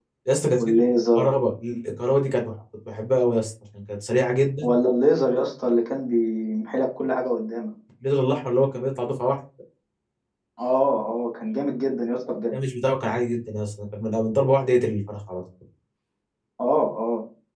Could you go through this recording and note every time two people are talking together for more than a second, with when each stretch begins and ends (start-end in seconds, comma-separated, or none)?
none